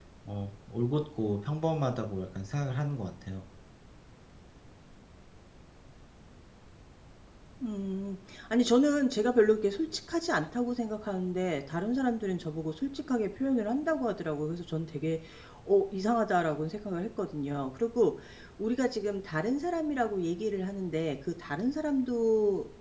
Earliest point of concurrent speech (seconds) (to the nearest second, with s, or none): none